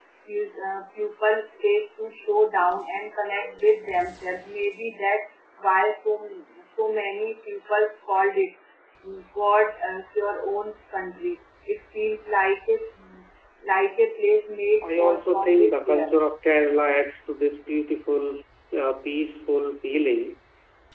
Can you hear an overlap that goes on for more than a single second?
Yes, from 14.8 s

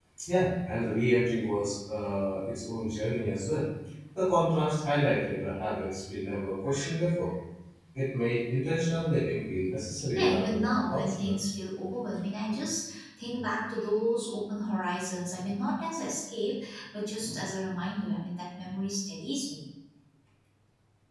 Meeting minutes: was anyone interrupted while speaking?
Yes, from 10.2 s

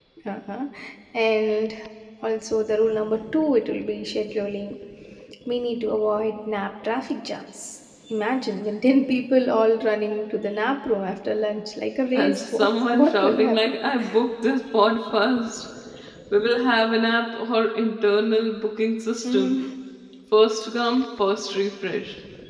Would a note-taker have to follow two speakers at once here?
Yes, from 12.2 s

